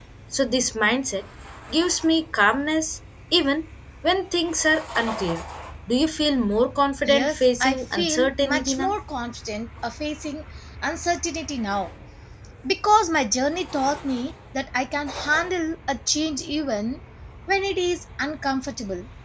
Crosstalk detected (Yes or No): Yes